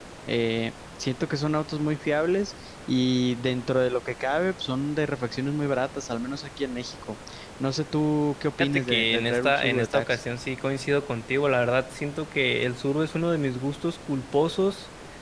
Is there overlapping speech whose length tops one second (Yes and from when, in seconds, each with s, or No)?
Yes, from 8.6 s